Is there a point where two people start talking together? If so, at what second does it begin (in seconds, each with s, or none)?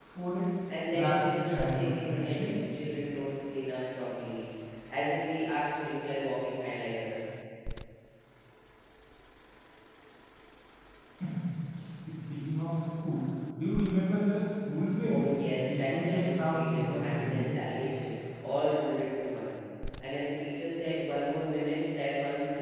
0.9 s